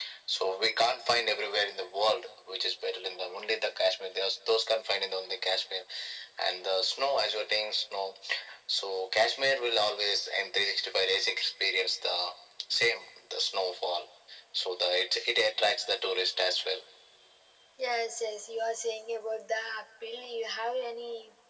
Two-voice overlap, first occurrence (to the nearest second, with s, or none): none